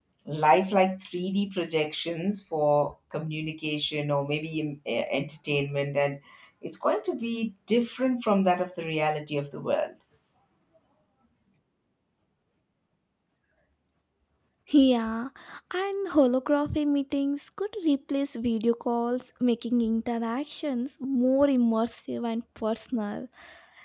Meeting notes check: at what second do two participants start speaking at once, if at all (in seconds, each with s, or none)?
none